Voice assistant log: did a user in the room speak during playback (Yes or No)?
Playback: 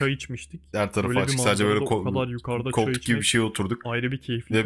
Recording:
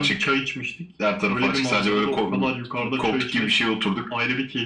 No